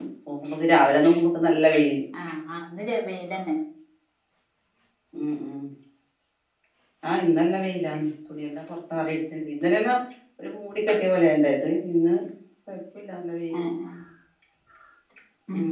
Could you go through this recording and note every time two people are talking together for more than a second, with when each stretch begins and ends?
none

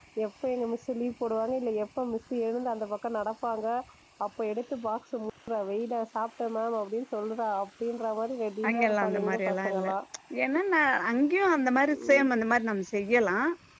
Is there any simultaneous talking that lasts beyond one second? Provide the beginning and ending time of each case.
8.7-9.9

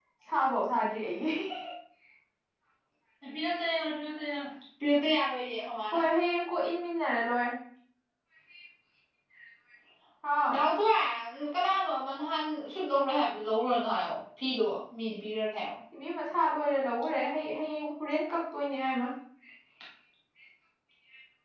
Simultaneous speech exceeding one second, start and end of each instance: none

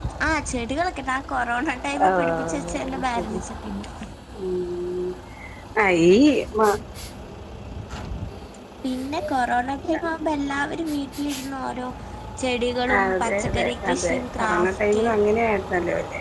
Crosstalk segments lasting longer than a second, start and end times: 2.1-3.5, 12.9-15.0

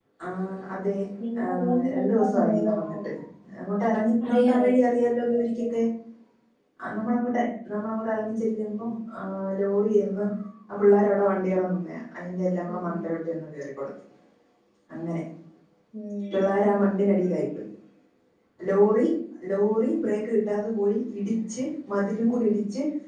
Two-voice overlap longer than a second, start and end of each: 1.5-3.1

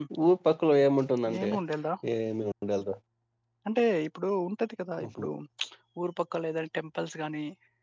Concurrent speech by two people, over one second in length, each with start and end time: none

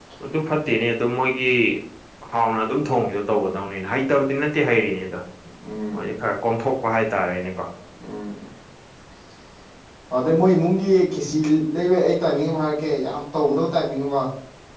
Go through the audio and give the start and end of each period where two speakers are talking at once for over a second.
none

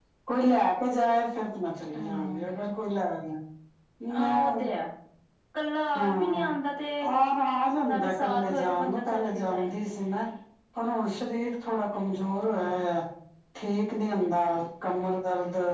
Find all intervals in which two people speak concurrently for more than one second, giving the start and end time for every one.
7.9-9.7

